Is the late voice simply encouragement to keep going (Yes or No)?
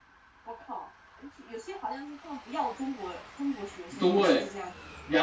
No